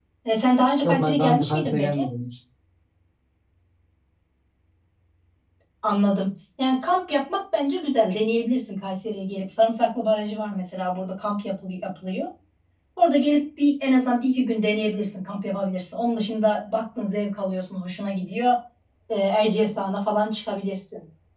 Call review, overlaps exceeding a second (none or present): present